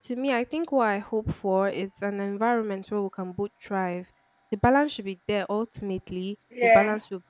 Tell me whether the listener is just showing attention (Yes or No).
Yes